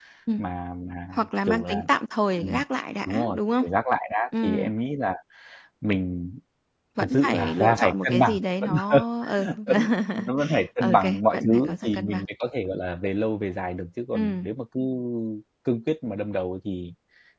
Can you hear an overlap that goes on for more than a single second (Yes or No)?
Yes